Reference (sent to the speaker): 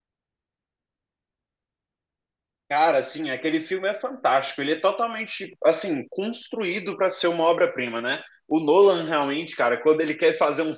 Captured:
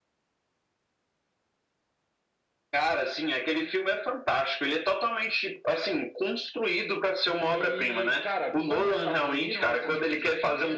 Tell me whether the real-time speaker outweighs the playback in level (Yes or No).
No